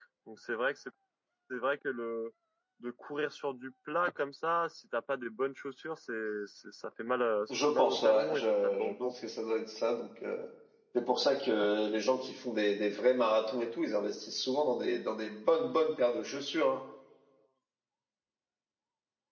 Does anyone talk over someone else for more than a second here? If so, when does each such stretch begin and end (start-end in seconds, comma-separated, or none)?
7.5-9.1